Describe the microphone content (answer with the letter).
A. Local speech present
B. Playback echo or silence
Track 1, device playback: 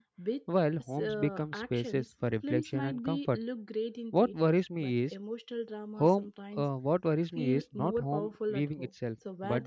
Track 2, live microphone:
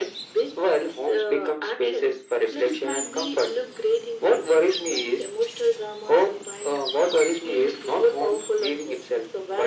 B